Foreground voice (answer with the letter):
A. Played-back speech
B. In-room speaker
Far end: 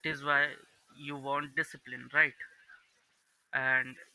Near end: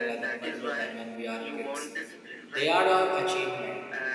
B